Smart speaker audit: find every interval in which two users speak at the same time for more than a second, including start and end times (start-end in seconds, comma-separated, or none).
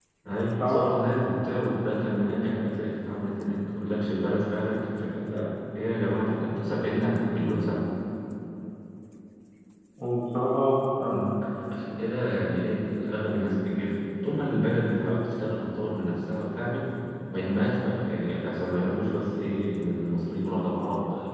none